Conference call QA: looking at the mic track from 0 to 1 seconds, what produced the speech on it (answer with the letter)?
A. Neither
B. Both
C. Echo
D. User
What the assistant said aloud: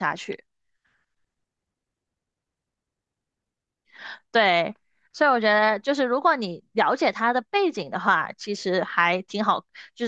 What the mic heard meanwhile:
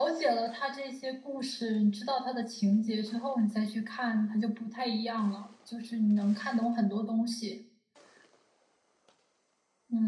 D